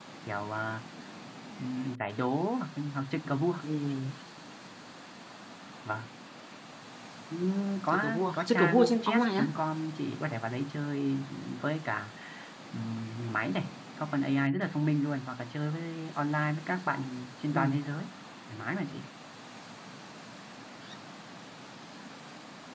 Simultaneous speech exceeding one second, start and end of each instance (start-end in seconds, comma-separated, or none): 7.9-9.5